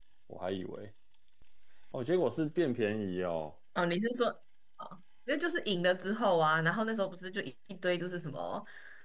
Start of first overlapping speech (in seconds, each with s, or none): none